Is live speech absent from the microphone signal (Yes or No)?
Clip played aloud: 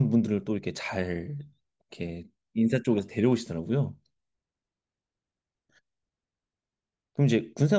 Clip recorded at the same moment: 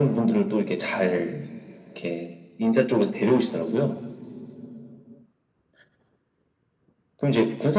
Yes